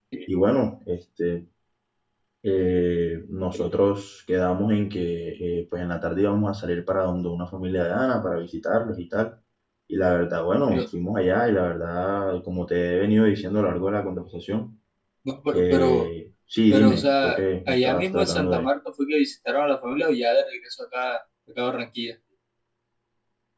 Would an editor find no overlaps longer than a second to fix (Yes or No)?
No